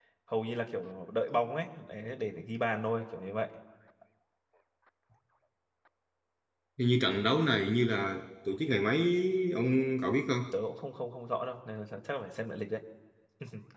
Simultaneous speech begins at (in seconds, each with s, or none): none